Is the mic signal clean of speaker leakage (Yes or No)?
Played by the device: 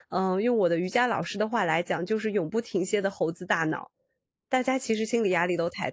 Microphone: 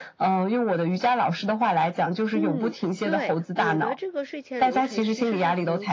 No